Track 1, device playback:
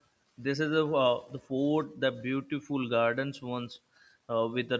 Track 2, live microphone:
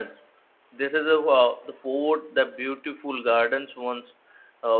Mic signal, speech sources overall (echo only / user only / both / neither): echo only